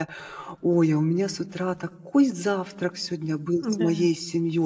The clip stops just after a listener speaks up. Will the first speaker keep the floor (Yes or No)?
Yes